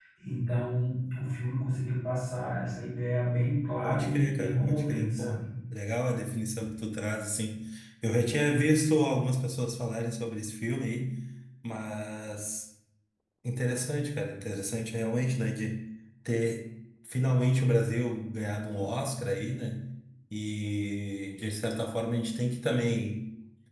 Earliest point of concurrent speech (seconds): 4 s

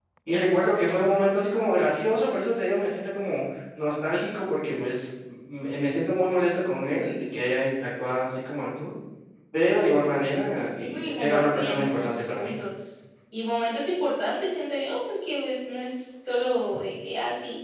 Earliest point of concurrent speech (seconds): 11 s

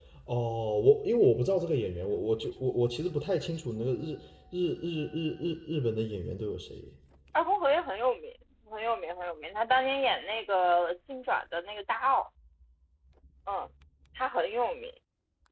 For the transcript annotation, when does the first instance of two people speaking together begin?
none

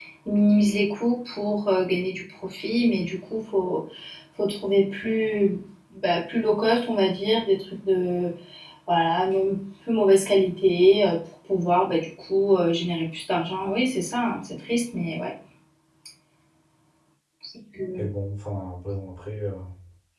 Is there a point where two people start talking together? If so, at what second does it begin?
none

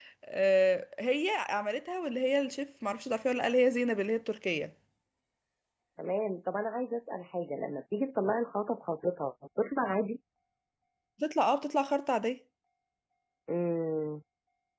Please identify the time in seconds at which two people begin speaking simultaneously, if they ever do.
none

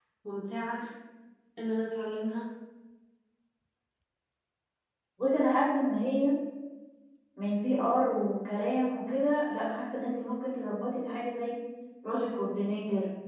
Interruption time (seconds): none

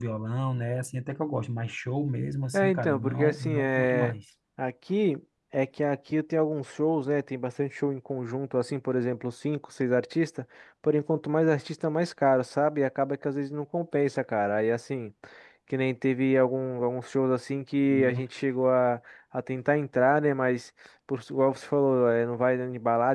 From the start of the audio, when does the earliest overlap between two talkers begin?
3 s

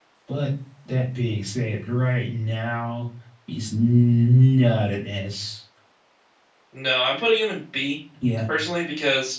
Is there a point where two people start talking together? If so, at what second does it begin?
none

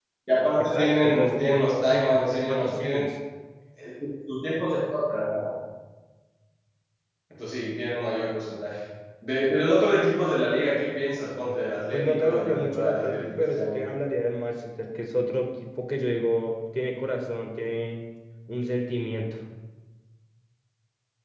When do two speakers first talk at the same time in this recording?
1 s

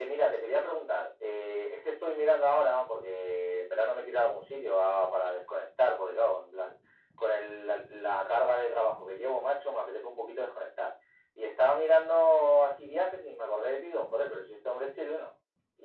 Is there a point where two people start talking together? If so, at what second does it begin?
none

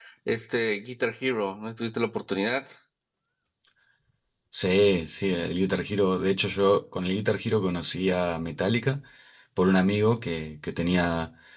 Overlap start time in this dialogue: none

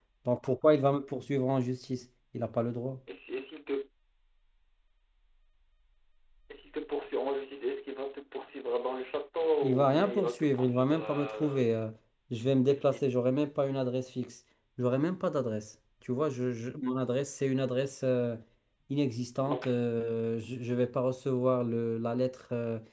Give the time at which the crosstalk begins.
10 s

